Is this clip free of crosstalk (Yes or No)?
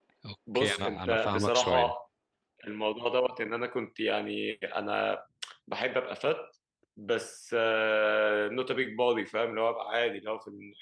No